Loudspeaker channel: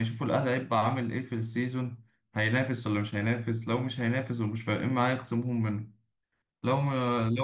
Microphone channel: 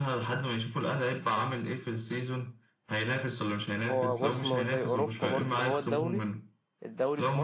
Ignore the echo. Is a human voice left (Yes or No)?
Yes